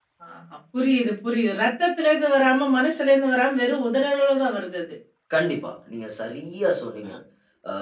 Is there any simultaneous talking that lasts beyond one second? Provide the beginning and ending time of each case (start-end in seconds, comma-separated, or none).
none